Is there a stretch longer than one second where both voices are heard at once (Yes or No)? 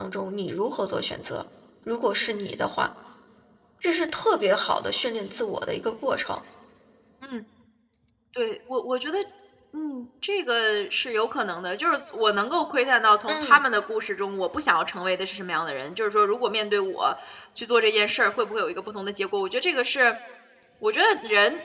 No